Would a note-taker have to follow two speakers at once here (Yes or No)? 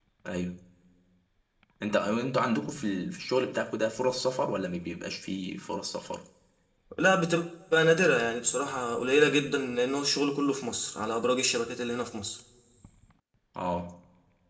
No